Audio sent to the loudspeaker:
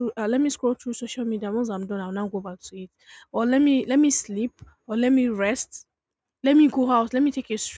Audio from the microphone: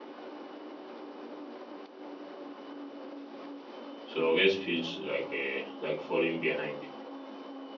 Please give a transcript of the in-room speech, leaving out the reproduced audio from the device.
So rest feels like a like falling behind.

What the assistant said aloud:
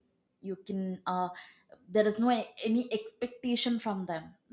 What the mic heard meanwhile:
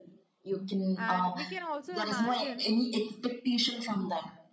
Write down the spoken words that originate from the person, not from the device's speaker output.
and we can also imagine

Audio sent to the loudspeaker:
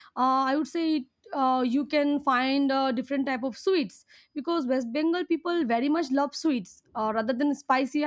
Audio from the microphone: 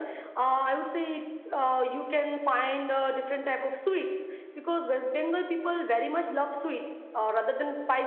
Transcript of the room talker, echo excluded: none

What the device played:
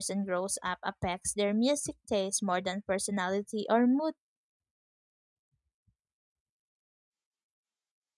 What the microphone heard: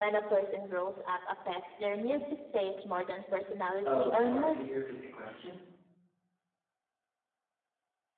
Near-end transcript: Oh, sorry, can you repeat the question?

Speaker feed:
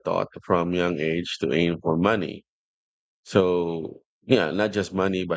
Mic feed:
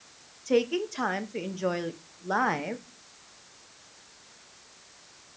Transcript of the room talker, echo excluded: taking time to enjoy life

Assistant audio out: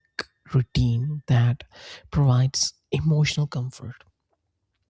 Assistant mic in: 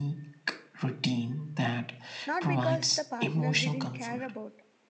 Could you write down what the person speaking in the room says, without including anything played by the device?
not because the partner didn't care about,

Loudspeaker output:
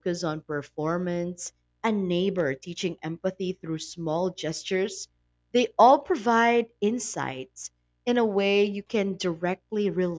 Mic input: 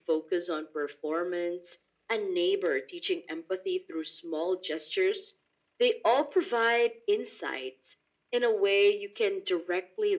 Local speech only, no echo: none

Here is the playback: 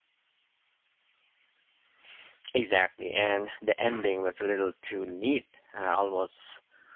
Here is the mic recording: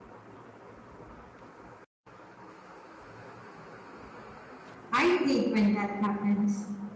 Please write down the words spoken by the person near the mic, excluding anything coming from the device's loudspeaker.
I hate when that happens.

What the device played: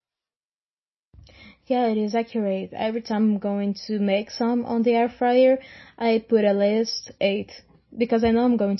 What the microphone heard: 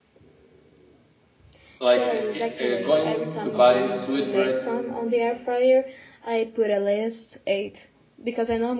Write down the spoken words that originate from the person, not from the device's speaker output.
like uh, uh, going to buy sweet bread

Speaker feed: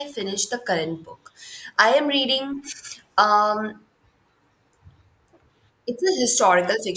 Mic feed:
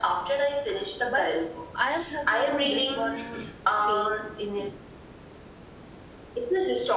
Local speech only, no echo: But I am hoping this one takes in it

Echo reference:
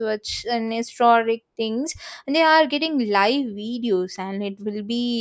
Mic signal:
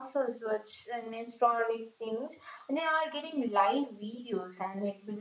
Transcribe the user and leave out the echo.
none

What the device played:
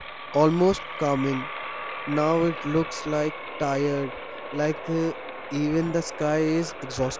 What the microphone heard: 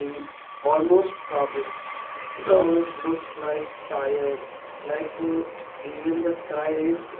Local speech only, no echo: Yes,

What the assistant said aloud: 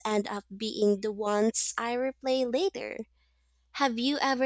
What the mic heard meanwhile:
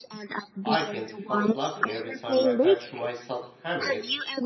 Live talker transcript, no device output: I can't help laughing every time I catch myself having it,

